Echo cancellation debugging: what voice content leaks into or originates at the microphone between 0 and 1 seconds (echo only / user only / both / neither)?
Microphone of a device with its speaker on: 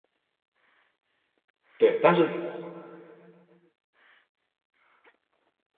neither